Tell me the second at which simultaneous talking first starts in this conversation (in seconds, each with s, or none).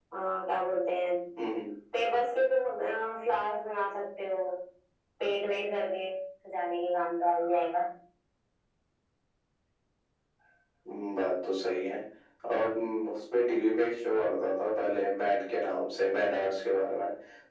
none